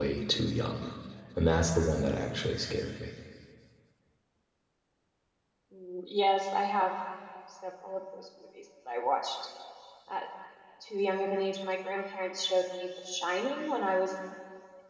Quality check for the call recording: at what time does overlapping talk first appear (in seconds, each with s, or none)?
none